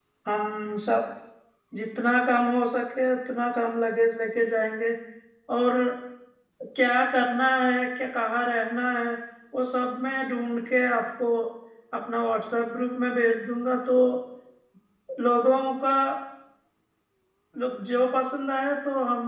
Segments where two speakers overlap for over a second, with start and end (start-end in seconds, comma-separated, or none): none